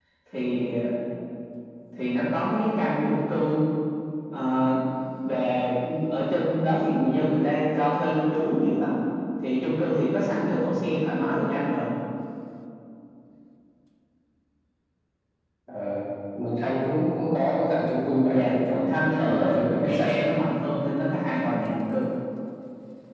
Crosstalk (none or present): present